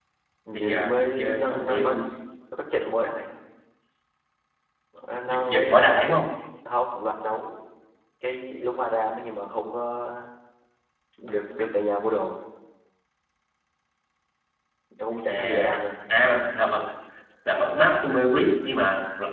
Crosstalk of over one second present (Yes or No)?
Yes